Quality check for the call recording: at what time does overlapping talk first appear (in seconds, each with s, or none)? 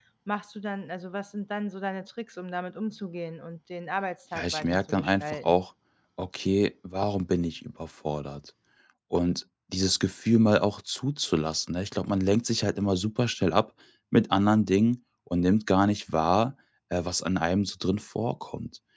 4.3 s